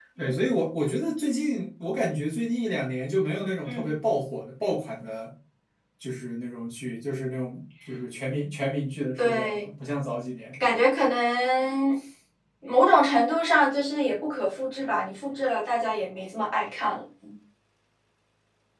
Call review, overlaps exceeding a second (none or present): none